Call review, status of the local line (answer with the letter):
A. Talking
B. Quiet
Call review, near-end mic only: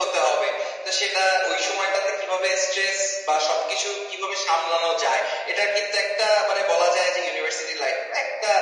B